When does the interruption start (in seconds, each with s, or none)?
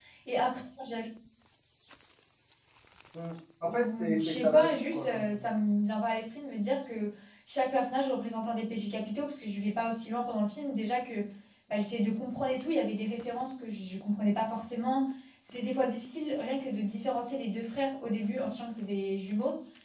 3.6 s